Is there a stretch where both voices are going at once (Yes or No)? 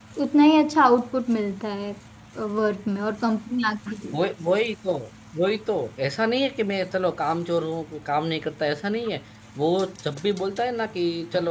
No